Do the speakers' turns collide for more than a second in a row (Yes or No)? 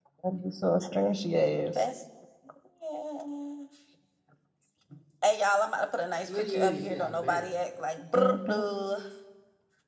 Yes